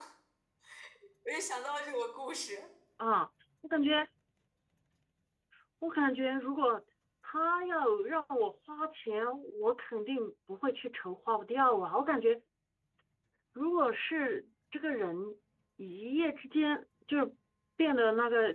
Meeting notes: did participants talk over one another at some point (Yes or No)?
No